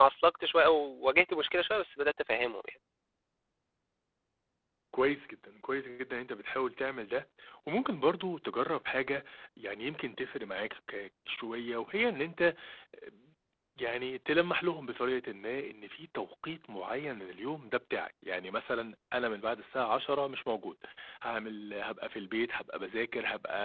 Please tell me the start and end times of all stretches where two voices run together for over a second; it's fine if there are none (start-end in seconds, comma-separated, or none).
none